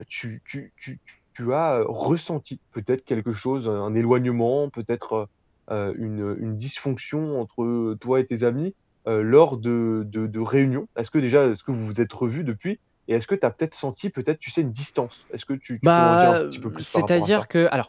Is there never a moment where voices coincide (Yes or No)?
No